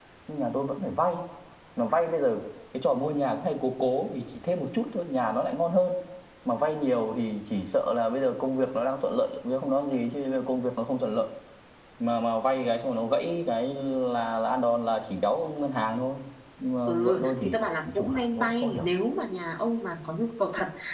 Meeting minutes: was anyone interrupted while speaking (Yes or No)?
Yes